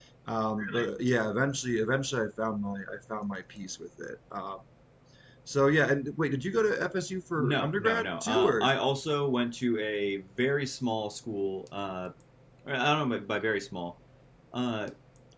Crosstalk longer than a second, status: present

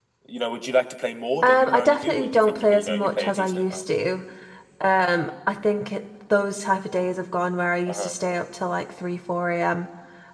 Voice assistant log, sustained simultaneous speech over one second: present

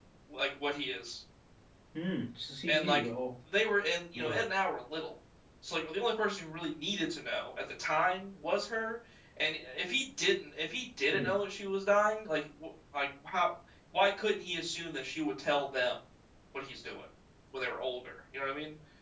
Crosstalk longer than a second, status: none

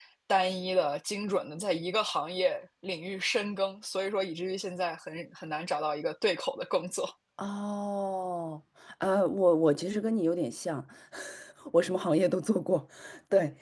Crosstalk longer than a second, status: none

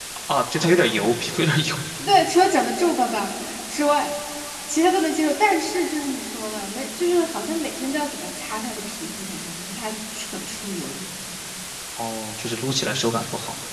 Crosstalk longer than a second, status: none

